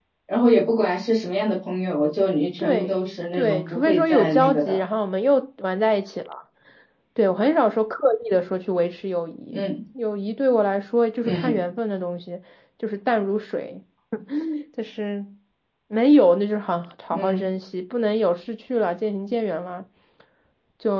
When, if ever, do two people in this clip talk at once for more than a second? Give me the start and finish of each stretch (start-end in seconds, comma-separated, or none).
2.6-4.8